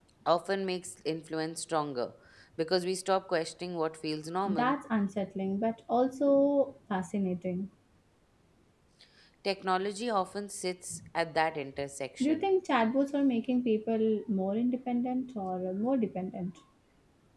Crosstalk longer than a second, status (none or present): none